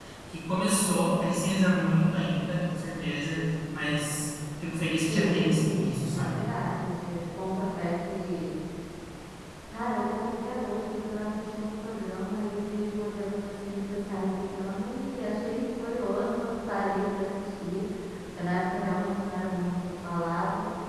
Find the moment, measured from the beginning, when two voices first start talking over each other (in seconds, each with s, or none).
5.1 s